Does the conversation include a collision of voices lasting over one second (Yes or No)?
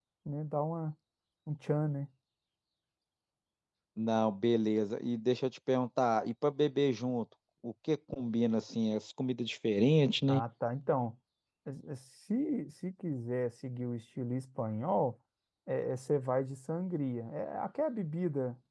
No